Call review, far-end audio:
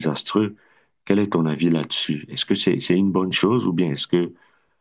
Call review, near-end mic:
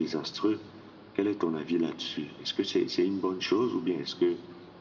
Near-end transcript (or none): none